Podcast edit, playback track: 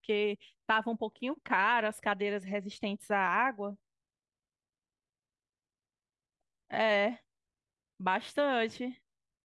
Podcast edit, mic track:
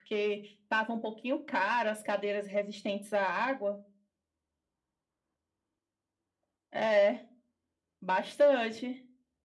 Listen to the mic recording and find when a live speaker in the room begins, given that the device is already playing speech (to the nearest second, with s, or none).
none